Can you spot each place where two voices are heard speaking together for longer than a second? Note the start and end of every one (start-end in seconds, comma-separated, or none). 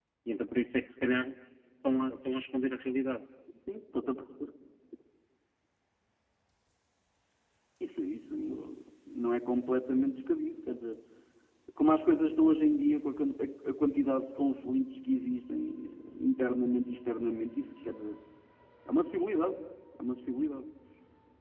none